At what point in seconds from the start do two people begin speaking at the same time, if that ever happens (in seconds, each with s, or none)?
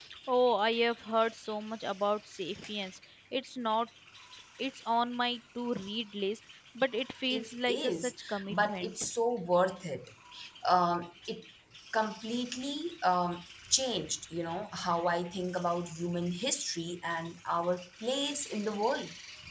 7.3 s